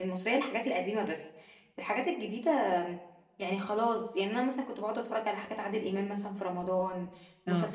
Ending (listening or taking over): listening